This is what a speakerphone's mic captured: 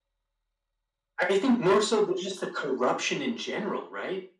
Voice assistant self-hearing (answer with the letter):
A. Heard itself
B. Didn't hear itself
A